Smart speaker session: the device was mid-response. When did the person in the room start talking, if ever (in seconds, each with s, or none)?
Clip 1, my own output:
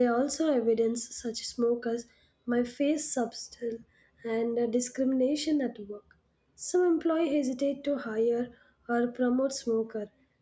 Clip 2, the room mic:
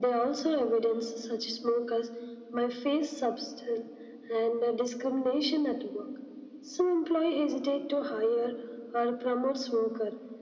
none